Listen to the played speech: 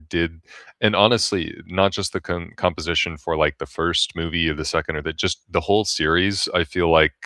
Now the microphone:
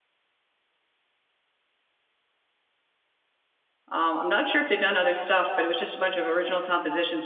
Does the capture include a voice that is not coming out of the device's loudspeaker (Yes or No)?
Yes